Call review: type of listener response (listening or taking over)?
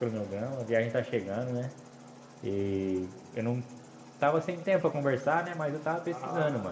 taking over